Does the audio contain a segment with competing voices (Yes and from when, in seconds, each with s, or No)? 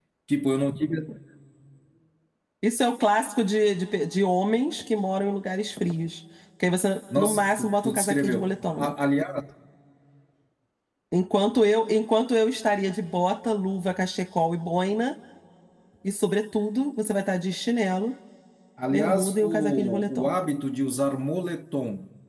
Yes, from 7.2 s